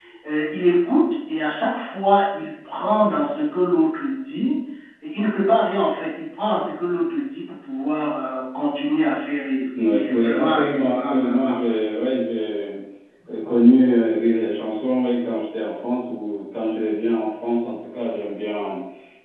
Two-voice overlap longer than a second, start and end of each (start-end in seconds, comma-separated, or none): 9.9-11.6